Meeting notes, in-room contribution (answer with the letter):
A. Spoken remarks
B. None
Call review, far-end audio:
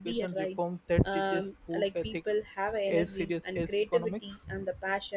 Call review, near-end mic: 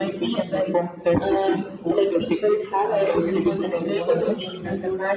A